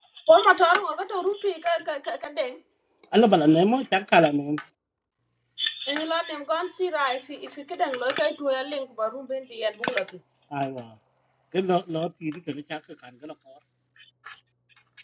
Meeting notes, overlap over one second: none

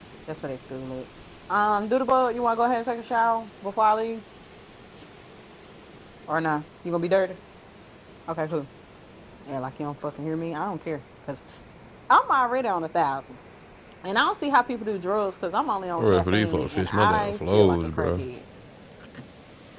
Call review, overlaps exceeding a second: present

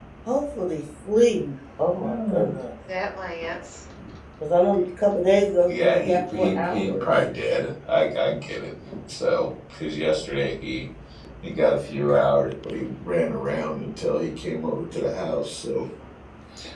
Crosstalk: present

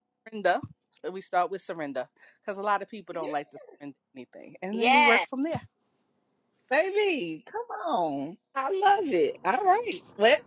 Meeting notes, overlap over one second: none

